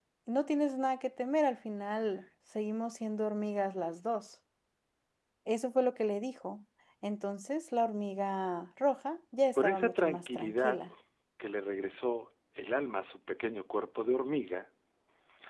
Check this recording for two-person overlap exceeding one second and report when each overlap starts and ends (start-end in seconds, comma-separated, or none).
9.6-10.8